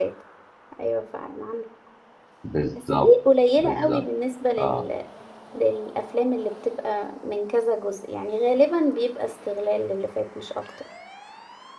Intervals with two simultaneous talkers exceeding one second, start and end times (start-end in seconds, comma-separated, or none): none